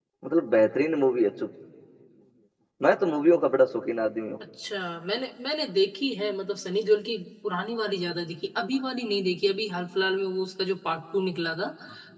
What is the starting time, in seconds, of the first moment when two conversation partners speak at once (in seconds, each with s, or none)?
none